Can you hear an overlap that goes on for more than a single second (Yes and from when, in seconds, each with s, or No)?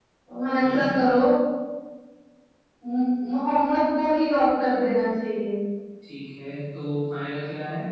No